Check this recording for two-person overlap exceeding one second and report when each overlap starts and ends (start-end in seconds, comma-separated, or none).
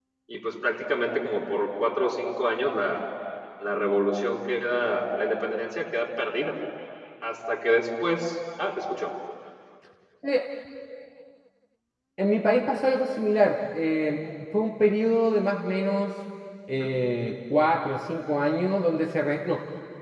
none